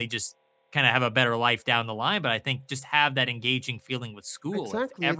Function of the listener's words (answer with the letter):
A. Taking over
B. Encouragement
A